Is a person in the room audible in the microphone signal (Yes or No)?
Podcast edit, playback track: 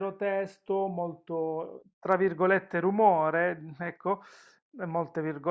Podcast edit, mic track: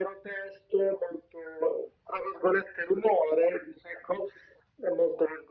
No